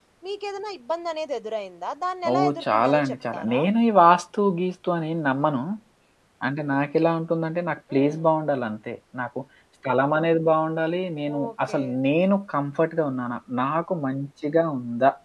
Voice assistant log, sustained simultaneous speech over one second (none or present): present